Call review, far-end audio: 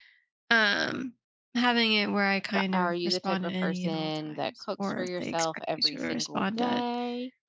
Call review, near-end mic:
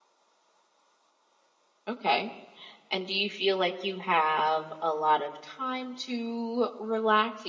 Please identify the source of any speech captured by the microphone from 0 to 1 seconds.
neither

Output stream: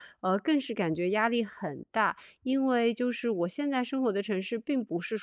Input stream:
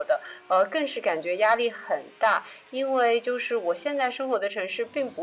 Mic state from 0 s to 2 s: echo only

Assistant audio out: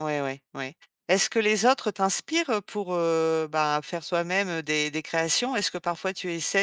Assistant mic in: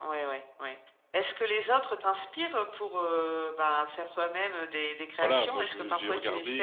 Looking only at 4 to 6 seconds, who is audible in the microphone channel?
both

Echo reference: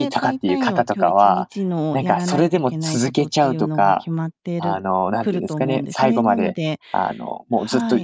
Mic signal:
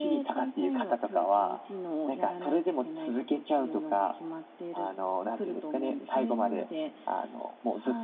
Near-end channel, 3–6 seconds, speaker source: echo only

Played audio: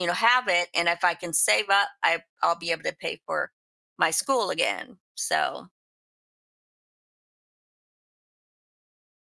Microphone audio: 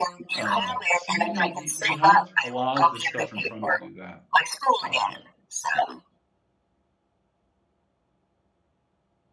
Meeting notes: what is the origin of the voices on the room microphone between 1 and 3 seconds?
both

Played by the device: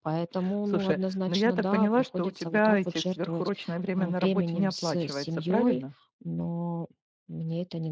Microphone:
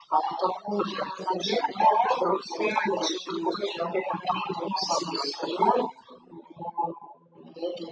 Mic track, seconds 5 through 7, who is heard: echo only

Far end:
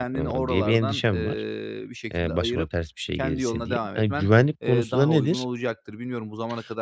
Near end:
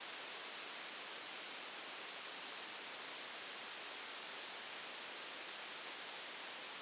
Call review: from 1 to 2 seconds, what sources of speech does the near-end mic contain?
neither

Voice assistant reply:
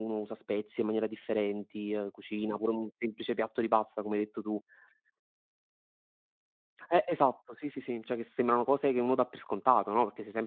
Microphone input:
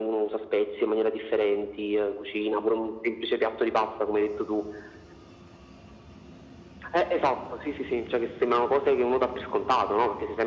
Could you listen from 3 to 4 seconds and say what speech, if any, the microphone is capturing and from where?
echo only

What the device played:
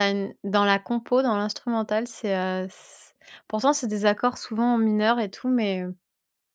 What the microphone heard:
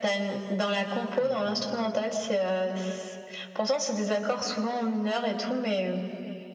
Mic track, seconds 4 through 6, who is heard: echo only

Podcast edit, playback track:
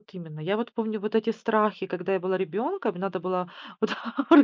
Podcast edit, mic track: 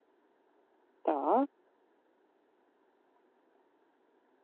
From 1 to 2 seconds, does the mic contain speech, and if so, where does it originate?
user only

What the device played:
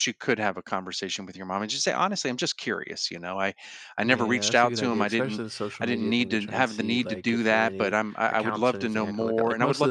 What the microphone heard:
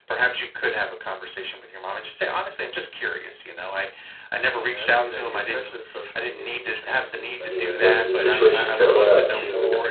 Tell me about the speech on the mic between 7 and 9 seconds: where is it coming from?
both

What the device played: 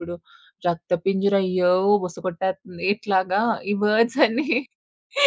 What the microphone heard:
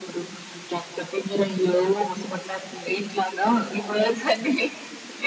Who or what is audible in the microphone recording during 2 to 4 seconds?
echo only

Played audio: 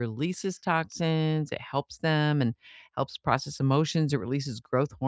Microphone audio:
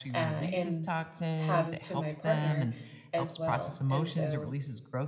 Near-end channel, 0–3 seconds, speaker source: both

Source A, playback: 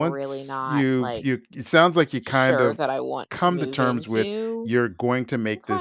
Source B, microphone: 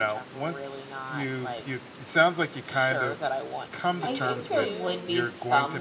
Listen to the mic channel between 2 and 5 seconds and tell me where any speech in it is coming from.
both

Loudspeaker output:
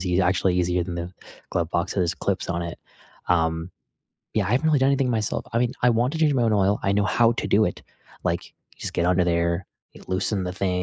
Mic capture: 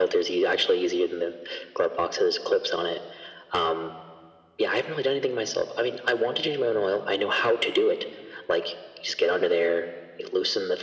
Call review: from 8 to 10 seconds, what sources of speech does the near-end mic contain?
echo only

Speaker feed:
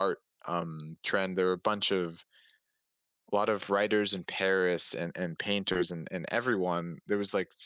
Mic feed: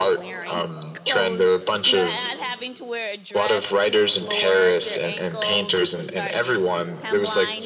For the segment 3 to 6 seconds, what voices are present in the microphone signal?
both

